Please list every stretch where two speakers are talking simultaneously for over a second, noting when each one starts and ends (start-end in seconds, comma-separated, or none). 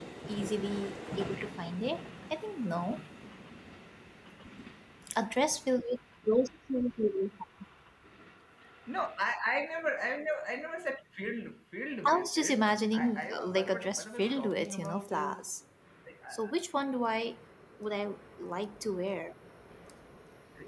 12.1-15.5